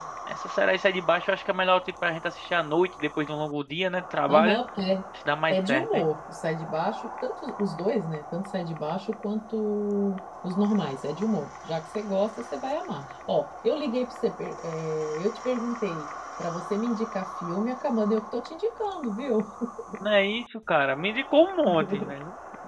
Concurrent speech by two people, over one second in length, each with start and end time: none

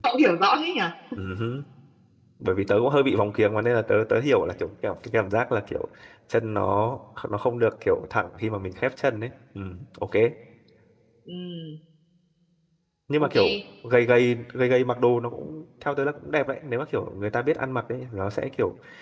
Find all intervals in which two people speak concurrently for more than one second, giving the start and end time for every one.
none

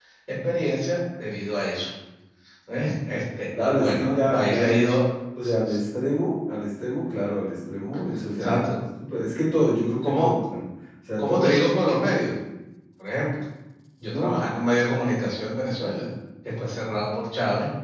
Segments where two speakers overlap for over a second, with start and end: 3.6-4.8

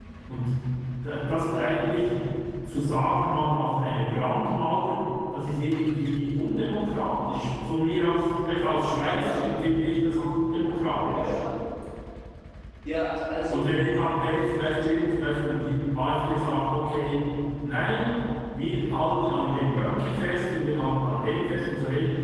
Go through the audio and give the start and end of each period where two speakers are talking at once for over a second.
none

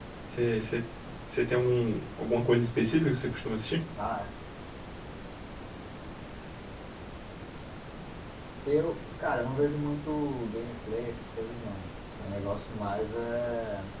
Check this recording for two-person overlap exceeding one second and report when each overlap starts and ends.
none

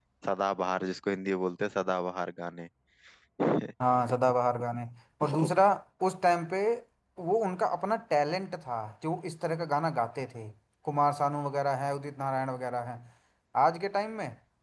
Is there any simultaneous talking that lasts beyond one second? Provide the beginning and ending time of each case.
none

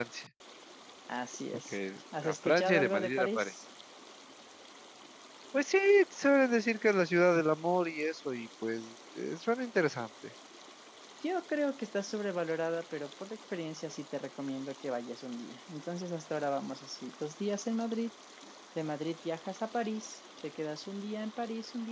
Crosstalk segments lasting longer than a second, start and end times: 2.2-3.5

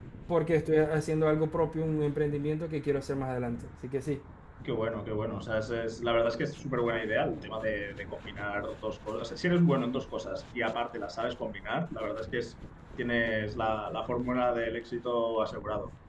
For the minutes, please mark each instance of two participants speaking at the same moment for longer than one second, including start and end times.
none

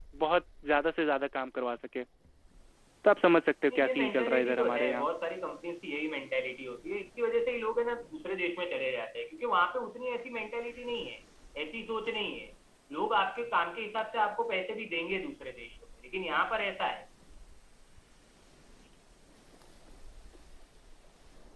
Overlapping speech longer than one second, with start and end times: 3.7-5.1

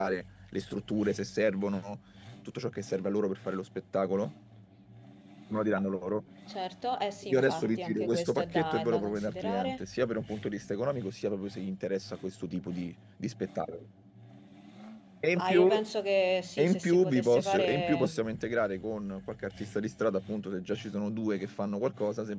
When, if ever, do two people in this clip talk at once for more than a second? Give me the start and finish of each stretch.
7.3-9.8, 16.6-18.1

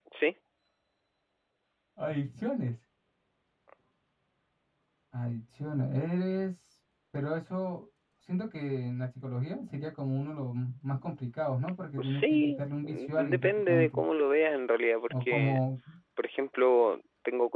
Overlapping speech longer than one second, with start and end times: 12.0-14.0

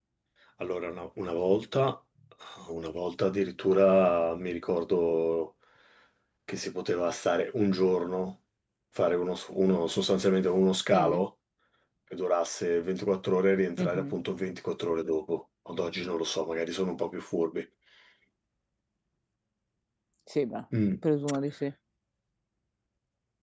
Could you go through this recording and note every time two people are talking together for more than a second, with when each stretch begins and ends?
none

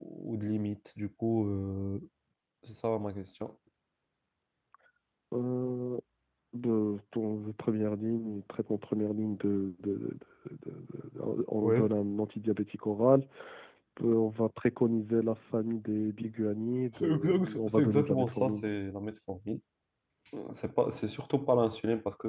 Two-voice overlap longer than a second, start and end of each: 17.0-18.6

